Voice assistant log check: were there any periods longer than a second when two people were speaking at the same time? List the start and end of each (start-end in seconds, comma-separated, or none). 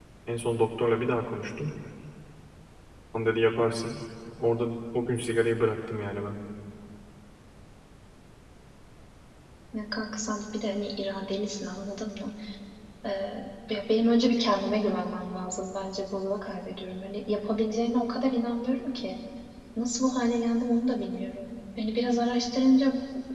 none